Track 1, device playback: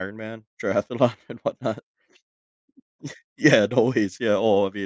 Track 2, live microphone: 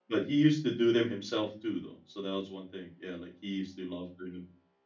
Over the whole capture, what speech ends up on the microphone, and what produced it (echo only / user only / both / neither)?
user only